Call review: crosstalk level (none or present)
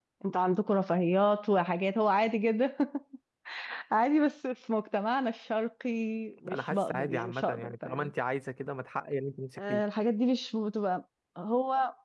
present